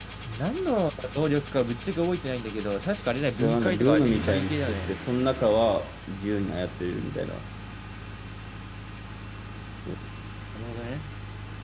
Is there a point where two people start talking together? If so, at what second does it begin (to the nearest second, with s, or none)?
3 s